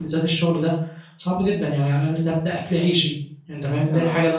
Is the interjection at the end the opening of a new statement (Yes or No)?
No